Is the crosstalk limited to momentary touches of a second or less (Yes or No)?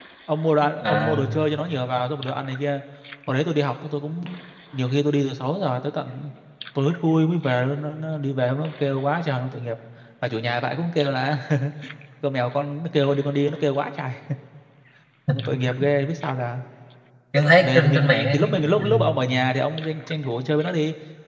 No